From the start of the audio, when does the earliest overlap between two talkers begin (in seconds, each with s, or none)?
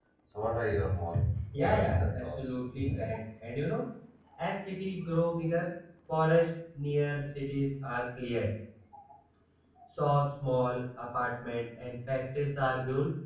1.6 s